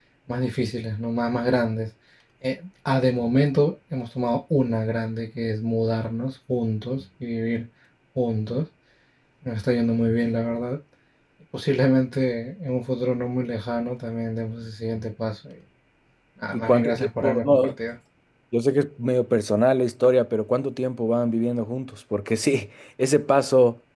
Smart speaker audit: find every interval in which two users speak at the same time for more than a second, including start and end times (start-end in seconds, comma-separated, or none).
16.5-17.7